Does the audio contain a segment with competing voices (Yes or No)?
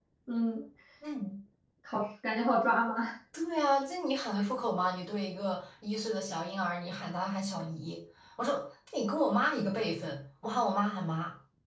No